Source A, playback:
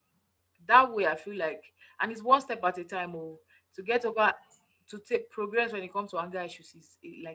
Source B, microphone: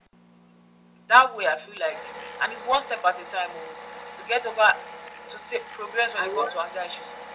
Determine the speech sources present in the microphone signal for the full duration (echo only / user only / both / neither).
both